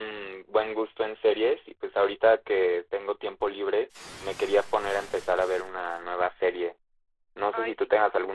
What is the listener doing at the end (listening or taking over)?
listening